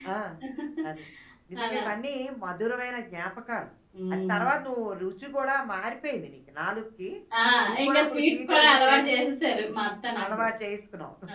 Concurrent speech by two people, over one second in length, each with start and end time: 7.8-9.1

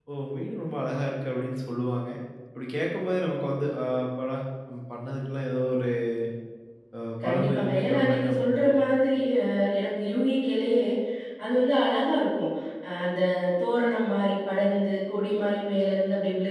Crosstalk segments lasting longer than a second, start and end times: 7.2-8.8

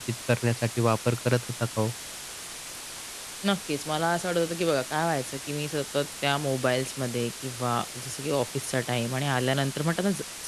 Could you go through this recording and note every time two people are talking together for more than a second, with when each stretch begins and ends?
none

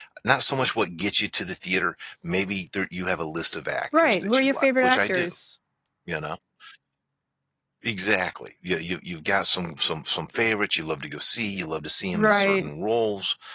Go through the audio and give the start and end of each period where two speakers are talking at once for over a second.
4.0-5.3

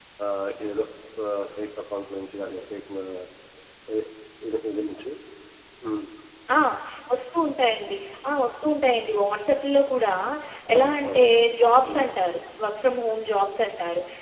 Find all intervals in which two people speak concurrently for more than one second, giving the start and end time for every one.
none

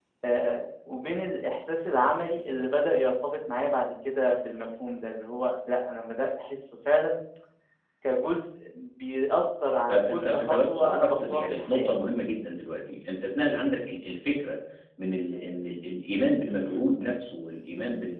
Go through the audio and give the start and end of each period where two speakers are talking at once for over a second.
9.9-11.9

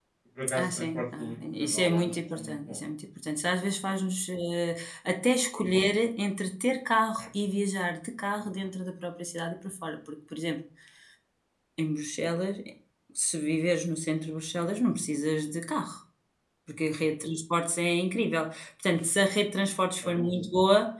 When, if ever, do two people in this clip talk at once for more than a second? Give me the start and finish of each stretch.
0.6-2.8

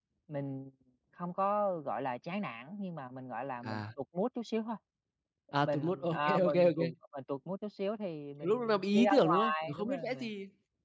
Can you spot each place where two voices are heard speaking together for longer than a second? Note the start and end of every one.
5.6-6.9, 8.4-10.3

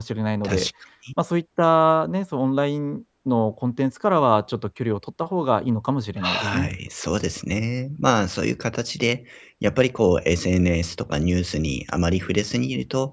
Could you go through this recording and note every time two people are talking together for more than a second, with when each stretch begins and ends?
none

